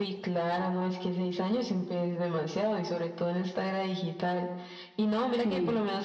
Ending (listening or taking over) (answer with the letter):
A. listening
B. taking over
A